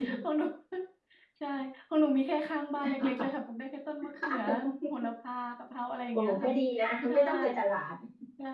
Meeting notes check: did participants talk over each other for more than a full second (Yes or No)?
No